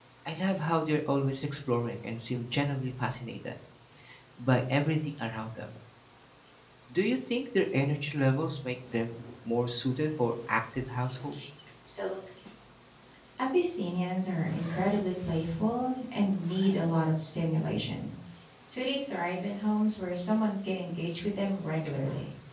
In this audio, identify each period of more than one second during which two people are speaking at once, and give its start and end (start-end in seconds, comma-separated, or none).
none